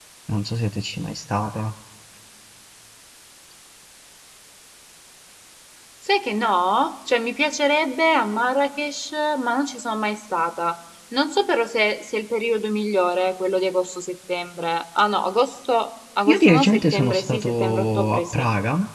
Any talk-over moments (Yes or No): Yes